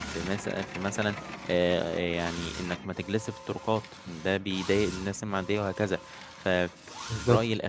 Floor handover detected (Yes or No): No